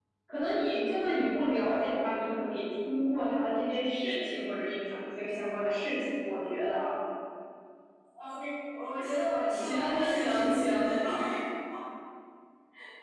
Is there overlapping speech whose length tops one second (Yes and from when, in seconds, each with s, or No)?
Yes, from 9.5 s